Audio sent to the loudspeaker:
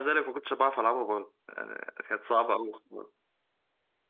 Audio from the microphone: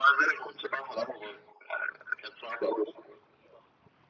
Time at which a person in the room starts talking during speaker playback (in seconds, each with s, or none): none